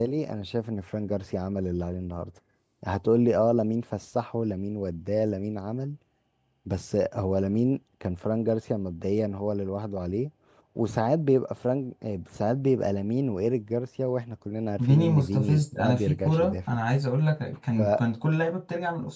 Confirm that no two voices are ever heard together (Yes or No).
No